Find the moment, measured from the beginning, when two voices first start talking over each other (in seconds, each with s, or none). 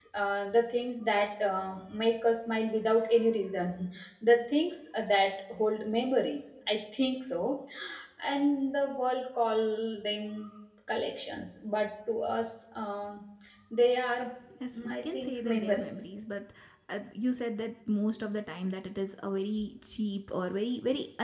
14.8 s